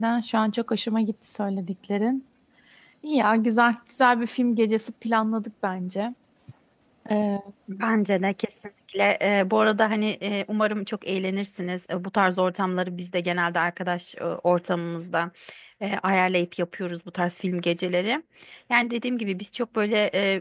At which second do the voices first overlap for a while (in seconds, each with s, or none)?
none